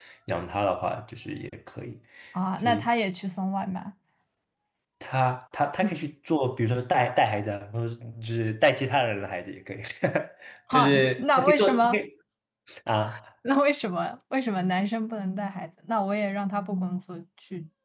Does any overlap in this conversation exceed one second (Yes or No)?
Yes